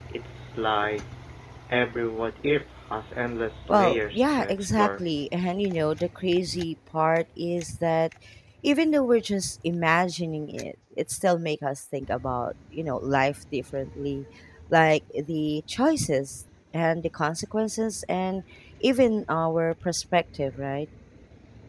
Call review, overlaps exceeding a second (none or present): present